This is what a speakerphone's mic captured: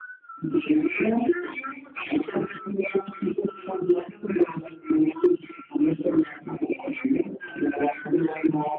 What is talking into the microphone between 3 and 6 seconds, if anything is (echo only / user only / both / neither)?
echo only